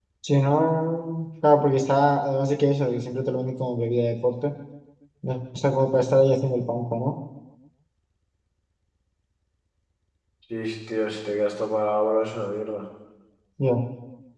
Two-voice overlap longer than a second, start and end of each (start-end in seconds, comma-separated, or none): none